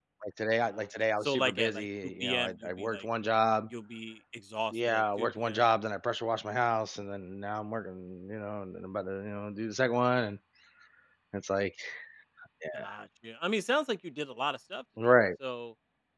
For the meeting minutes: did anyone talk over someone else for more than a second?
Yes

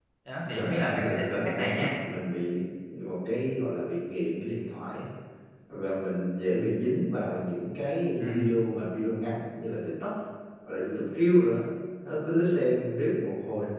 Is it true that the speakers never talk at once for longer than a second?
No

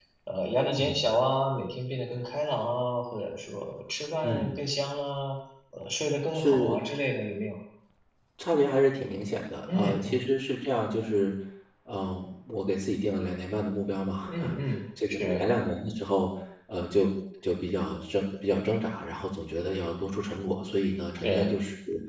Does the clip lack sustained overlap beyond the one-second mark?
Yes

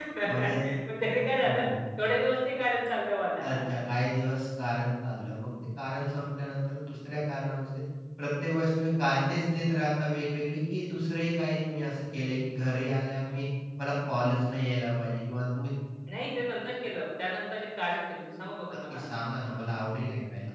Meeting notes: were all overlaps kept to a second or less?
Yes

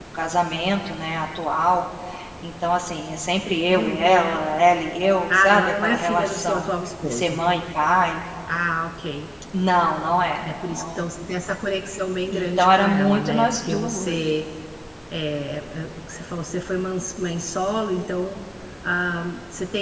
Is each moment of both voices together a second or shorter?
No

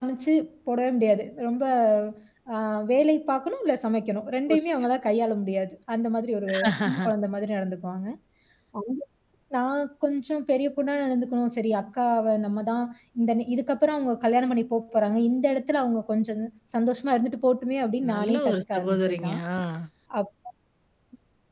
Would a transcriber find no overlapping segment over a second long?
No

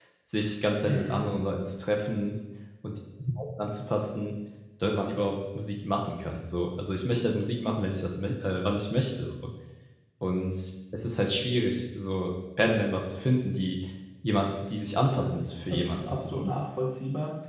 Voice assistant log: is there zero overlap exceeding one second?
No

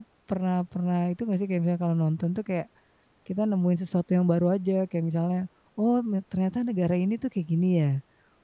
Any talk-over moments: No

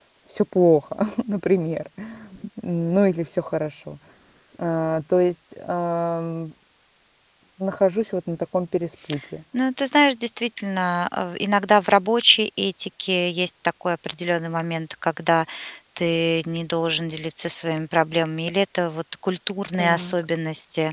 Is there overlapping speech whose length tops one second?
No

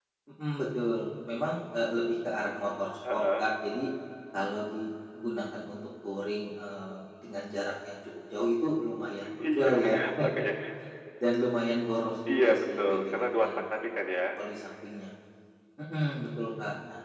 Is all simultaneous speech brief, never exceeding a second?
No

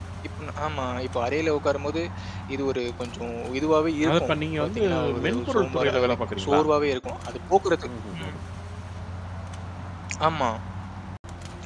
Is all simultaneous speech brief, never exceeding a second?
No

